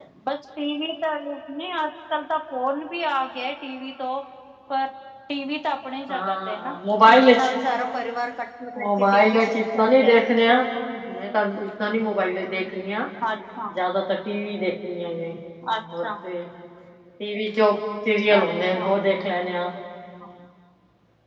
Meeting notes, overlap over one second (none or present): present